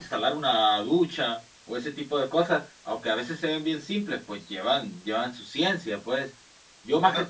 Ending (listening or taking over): listening